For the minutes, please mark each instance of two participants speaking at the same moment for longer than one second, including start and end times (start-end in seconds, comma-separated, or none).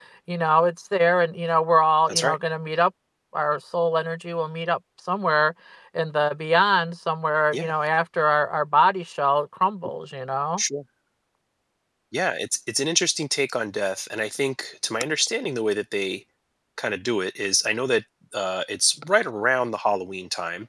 none